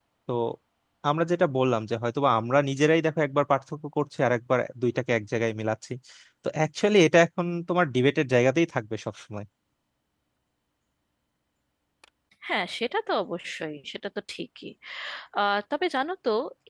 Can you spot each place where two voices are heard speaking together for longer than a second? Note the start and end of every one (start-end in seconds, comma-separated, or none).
none